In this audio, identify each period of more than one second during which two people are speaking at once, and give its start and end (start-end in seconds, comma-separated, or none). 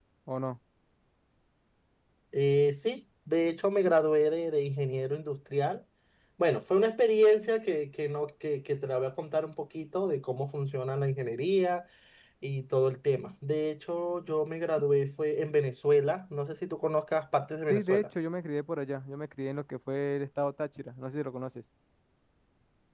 none